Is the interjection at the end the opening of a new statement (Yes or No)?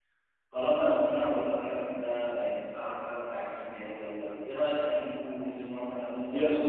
Yes